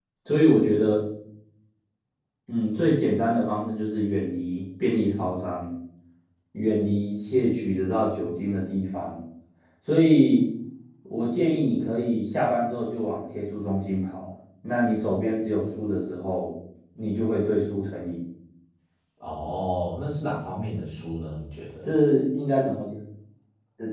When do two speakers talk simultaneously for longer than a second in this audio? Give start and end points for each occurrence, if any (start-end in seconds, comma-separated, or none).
none